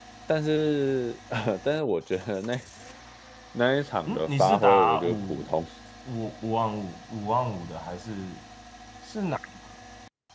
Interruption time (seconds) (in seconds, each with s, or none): 4.1 s